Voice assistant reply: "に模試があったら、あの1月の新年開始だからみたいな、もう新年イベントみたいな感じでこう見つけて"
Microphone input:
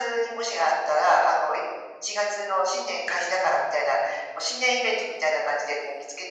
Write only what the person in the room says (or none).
none